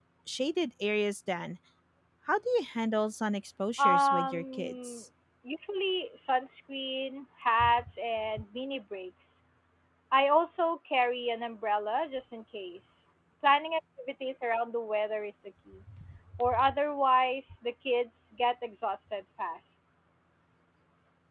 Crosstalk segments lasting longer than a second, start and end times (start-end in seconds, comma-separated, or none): 3.8-5.0